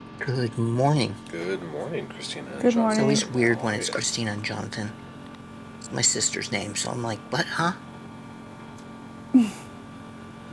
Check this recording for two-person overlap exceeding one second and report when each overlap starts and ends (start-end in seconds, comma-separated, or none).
2.6-3.9